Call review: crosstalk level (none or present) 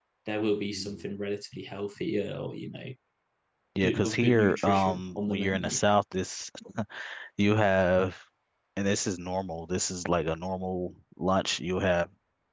present